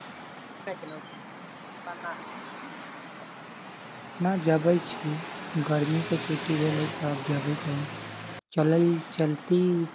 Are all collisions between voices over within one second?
Yes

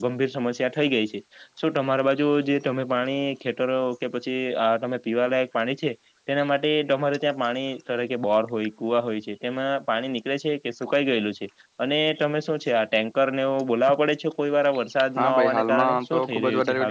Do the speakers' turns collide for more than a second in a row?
Yes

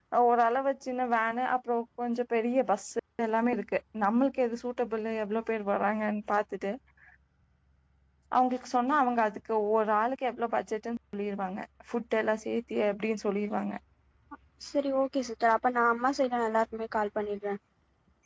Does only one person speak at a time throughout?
Yes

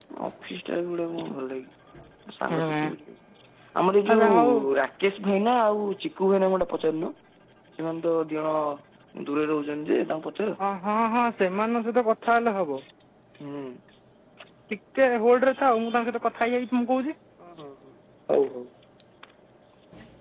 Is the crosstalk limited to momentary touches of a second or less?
Yes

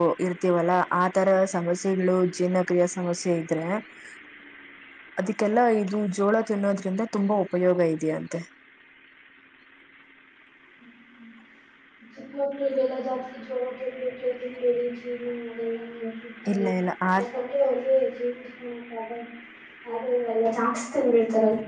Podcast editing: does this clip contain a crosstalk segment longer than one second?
No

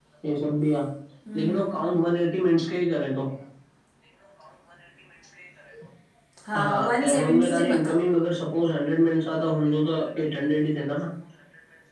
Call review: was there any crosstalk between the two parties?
Yes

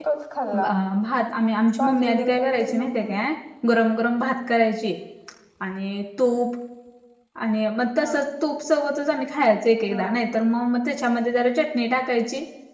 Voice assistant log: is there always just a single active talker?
No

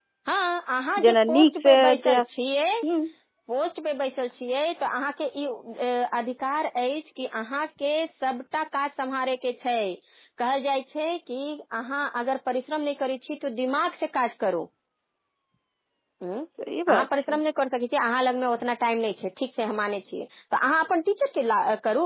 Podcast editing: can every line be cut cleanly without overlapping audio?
No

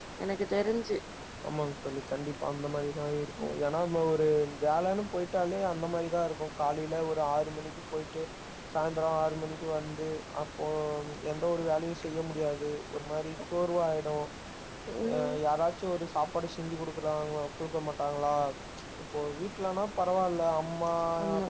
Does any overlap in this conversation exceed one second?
No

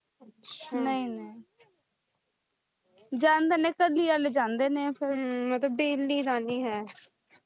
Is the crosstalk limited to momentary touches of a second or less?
Yes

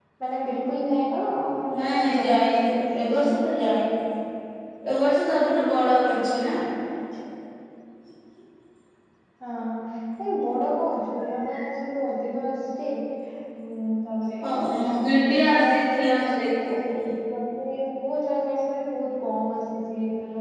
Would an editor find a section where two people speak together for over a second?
Yes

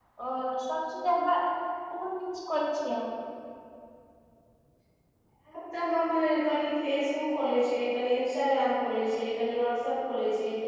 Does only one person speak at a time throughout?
Yes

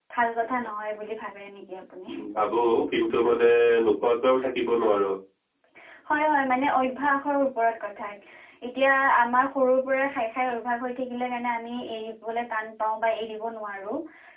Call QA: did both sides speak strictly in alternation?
Yes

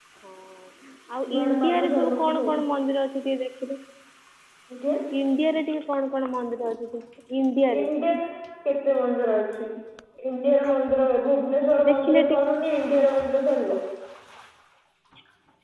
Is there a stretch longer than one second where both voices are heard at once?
Yes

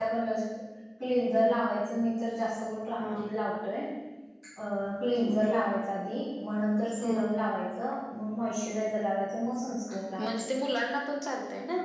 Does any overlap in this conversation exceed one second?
No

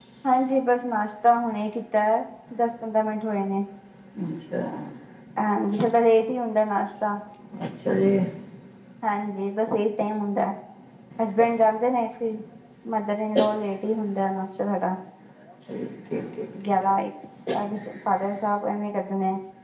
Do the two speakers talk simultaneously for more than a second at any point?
No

